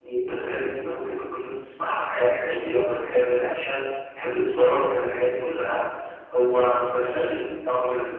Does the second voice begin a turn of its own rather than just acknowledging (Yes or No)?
No